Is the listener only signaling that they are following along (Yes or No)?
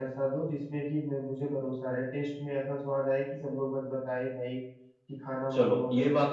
No